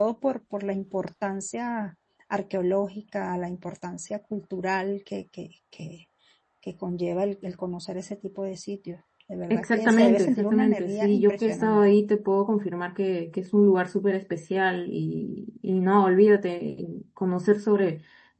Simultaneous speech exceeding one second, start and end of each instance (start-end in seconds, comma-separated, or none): 9.5-11.8